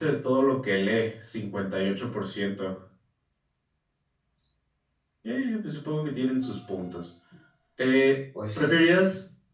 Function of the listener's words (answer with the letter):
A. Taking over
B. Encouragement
B